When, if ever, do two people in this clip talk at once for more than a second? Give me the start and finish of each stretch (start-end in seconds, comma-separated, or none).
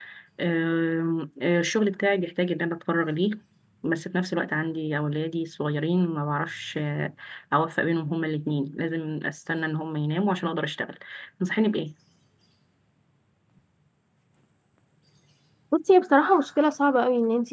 none